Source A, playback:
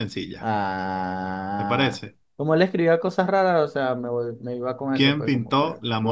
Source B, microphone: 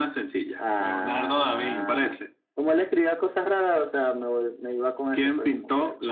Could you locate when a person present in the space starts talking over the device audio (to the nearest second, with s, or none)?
1 s